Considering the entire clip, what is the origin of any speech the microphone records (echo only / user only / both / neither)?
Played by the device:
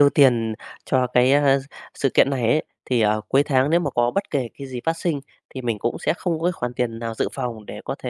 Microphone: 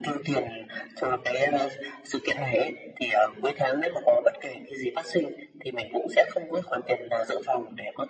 echo only